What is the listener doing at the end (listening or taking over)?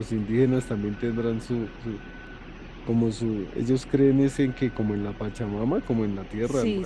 taking over